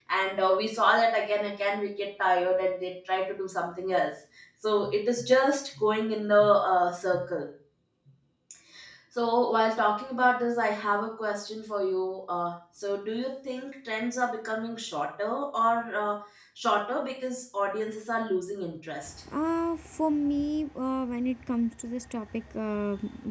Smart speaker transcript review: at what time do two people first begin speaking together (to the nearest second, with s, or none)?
none